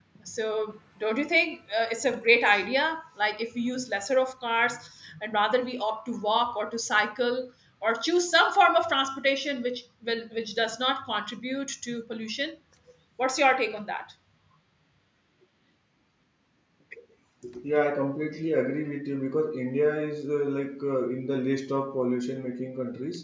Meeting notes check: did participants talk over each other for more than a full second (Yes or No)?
No